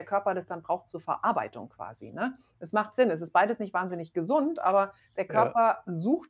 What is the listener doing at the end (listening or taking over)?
listening